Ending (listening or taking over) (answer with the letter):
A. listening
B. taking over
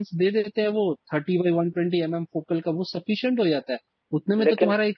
A